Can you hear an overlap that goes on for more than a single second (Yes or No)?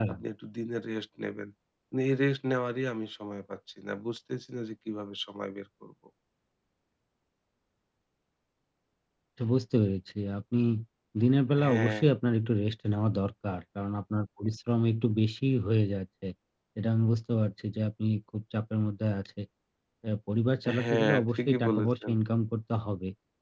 Yes